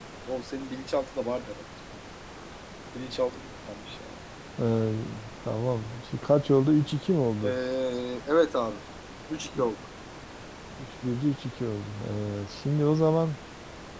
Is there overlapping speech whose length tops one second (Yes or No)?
No